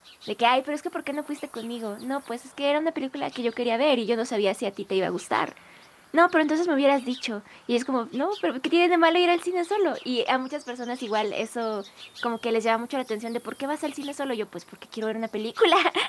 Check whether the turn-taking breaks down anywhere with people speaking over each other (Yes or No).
No